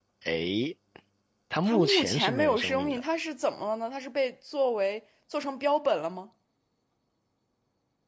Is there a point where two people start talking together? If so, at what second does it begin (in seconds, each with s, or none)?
1.6 s